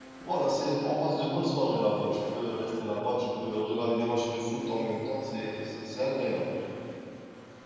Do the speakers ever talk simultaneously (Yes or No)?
No